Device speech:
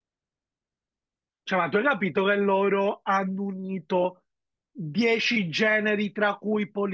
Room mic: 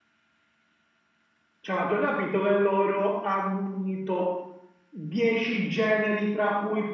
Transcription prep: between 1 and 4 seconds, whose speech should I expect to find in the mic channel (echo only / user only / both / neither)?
echo only